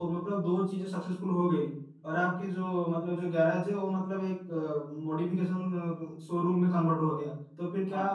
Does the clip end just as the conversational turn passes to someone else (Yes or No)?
No